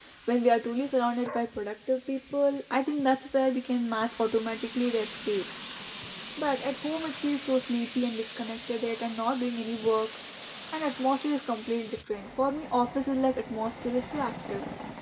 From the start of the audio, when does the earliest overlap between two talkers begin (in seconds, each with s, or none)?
none